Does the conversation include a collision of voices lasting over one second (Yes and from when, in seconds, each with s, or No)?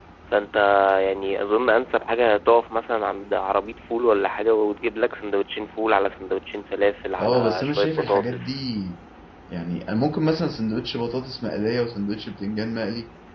Yes, from 7.2 s